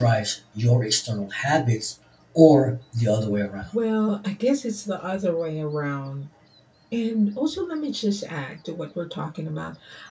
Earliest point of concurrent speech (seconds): none

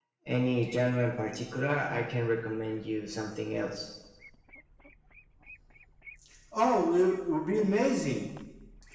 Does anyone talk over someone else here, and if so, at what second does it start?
none

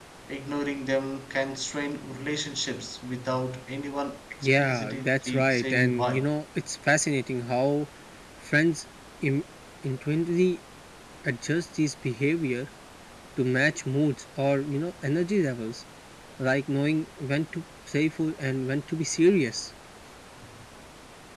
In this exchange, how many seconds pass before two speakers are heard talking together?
4.4 s

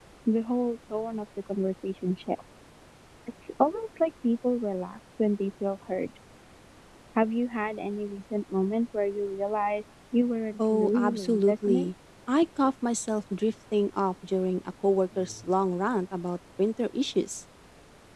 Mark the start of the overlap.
10.6 s

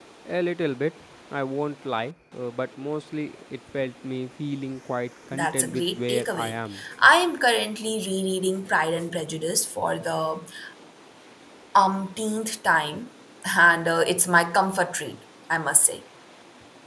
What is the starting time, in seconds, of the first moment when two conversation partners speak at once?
5.3 s

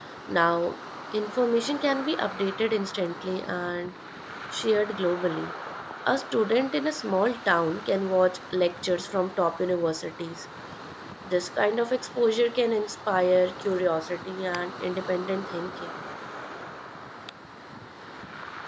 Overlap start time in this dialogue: none

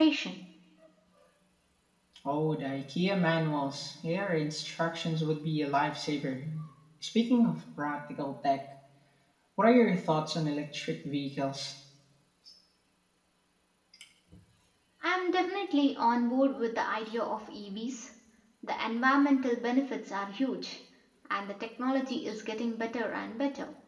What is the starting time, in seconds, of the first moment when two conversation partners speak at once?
none

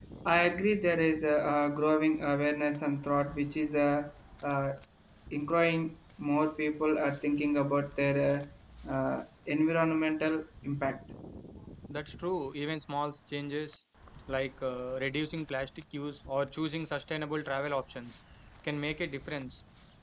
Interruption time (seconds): none

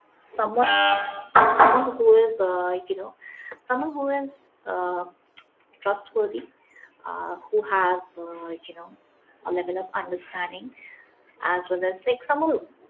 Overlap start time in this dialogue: none

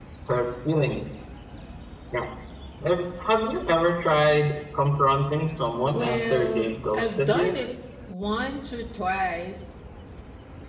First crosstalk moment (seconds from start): 5.9 s

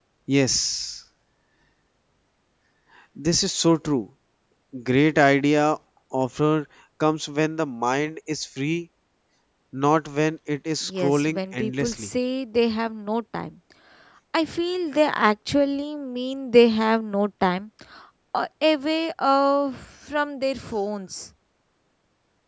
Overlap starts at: 10.9 s

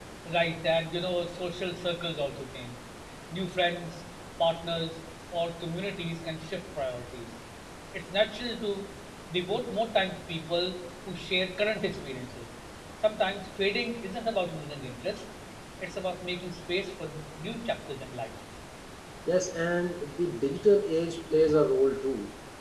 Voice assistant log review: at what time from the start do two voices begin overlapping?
none

